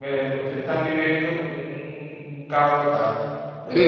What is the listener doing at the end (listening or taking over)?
taking over